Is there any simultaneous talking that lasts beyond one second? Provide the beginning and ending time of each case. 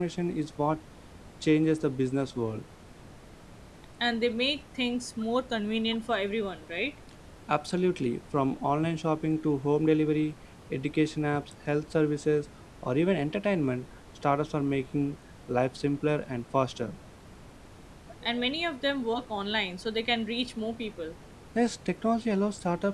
none

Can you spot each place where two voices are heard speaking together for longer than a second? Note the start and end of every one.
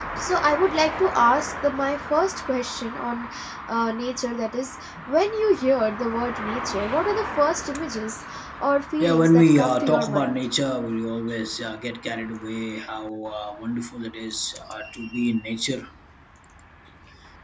9.0-10.3

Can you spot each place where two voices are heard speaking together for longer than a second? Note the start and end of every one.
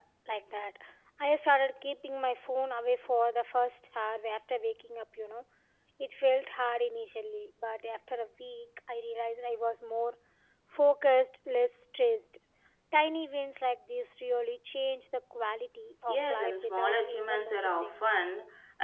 16.1-18.2

